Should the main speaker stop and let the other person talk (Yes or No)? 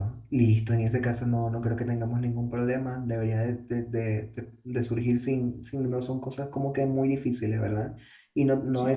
No